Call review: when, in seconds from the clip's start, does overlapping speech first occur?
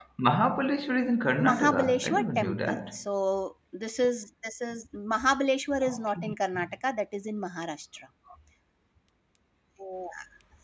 1.4 s

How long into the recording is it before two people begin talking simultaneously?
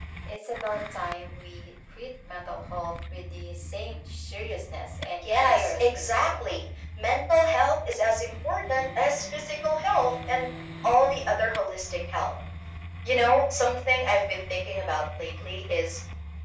5.2 s

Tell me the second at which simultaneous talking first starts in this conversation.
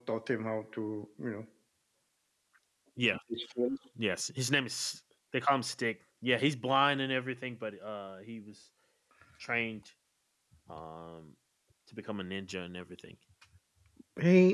none

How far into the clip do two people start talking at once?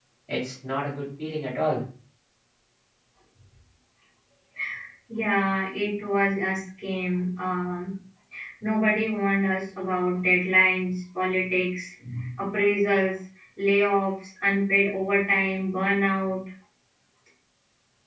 none

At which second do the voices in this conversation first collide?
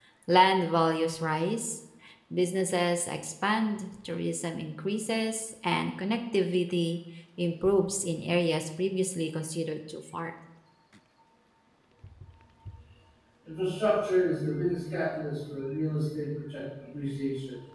none

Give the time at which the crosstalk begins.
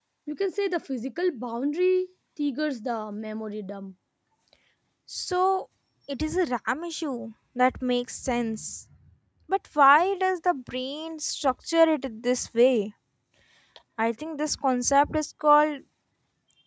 none

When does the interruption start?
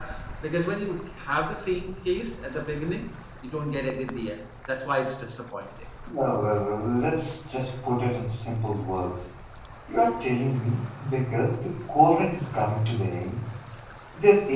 none

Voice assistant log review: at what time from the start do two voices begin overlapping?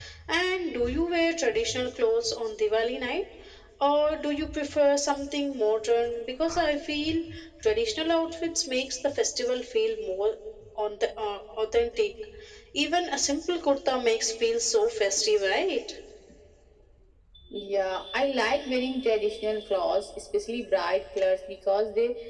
none

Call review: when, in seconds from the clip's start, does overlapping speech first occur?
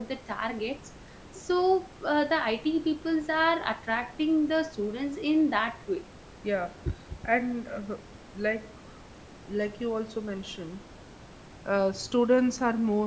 none

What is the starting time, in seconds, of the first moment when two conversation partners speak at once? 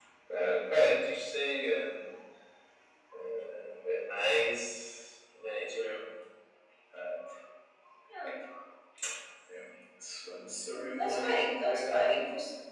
10.7 s

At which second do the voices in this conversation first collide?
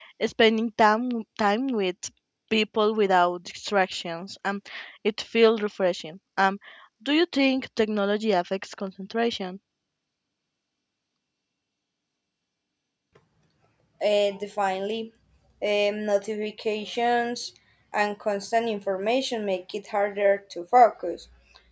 none

